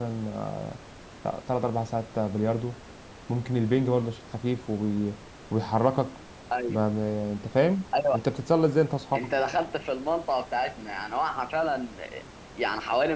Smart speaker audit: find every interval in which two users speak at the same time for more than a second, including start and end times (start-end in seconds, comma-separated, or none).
none